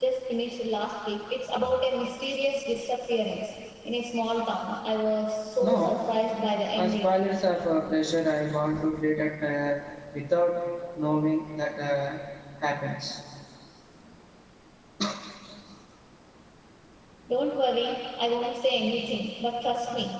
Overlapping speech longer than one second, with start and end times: none

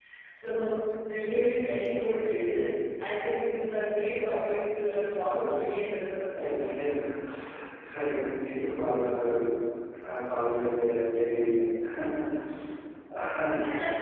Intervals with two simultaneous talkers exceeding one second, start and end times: none

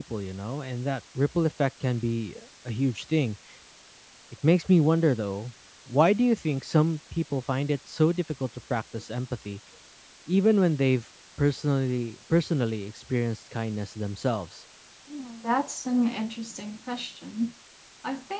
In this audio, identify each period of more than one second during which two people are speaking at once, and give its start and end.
none

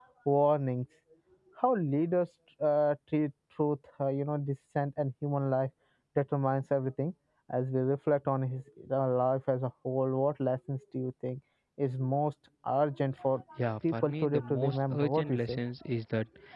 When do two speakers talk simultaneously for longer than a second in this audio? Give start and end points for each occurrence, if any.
13.9-15.6

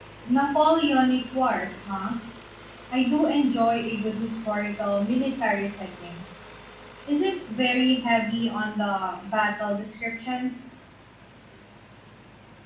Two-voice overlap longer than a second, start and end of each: none

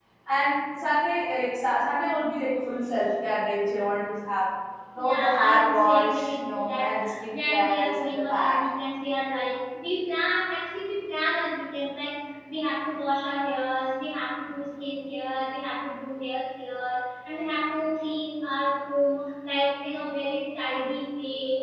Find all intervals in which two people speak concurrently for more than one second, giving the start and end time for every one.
5.0-8.6

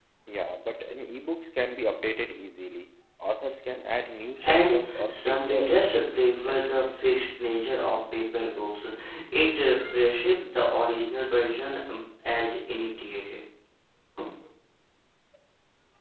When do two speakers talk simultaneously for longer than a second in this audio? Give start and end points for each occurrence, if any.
4.4-6.7

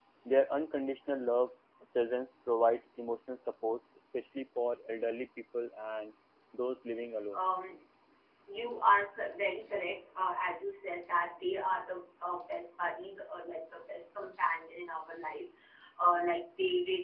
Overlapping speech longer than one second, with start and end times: none

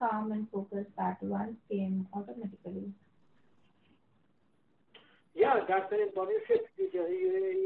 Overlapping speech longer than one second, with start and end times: none

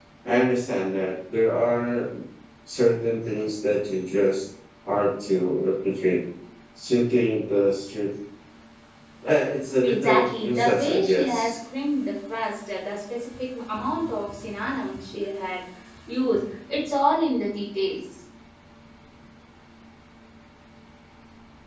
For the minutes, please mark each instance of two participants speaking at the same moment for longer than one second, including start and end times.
9.8-11.5

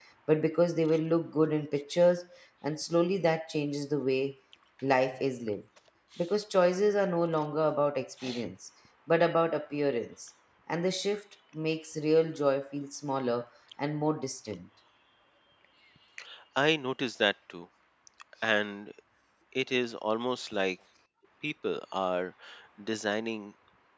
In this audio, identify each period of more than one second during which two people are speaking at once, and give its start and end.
none

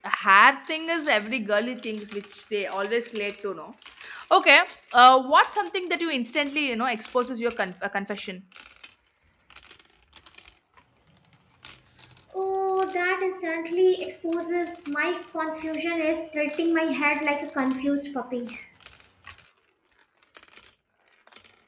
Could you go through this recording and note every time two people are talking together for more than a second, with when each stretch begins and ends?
none

